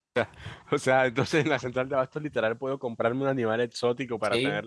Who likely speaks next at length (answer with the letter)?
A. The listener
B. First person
A